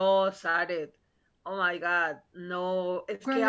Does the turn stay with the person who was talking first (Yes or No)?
Yes